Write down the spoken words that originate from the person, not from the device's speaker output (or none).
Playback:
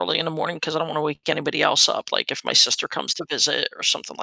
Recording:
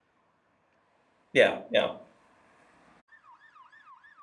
Yeah, yeah,